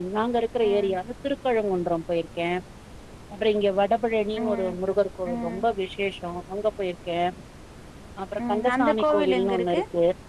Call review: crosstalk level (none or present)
present